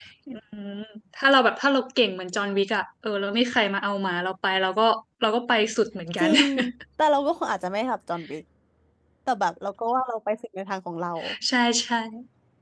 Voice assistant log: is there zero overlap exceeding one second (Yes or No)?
Yes